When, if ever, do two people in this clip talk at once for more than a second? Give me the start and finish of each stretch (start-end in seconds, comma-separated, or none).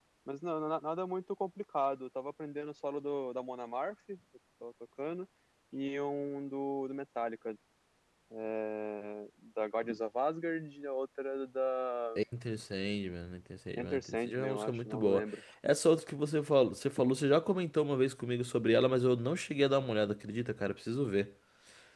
13.8-15.2